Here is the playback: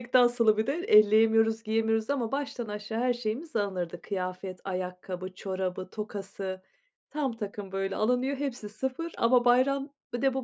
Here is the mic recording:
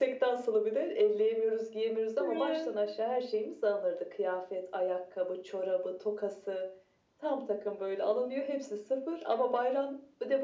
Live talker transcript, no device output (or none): Ya.